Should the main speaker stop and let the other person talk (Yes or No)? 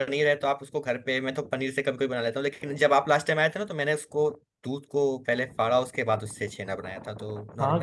Yes